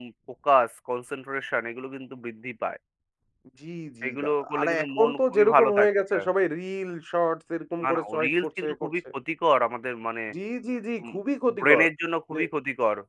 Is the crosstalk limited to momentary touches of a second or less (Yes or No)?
No